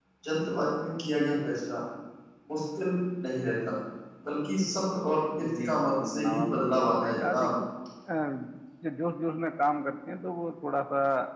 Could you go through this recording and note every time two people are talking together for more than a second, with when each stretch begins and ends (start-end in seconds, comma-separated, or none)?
5.6-7.5